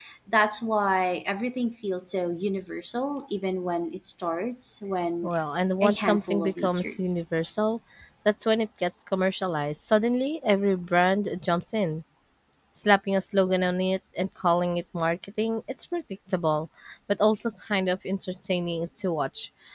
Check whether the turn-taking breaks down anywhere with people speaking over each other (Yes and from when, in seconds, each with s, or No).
Yes, from 5.8 s